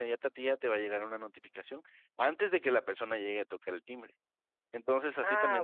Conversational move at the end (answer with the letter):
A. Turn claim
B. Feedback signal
A